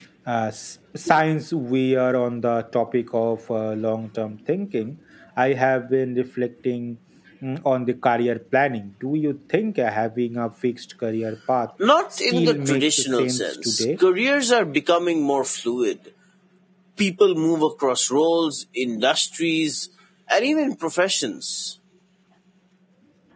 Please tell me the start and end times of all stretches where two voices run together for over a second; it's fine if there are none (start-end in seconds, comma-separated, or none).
12.2-13.8